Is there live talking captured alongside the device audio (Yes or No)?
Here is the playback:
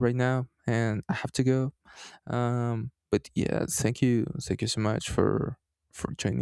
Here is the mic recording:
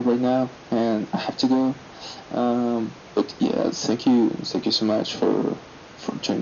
No